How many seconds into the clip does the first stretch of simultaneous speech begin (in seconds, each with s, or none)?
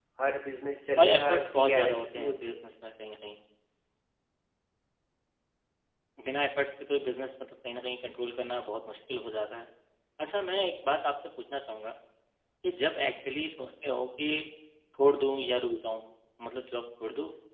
1.0 s